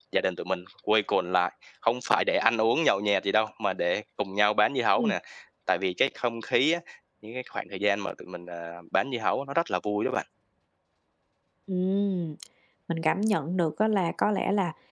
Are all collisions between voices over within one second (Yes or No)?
Yes